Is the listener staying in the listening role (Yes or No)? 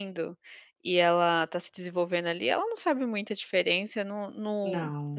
Yes